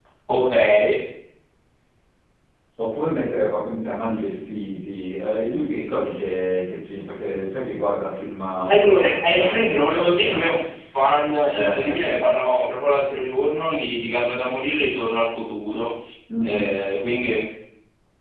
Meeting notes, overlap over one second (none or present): present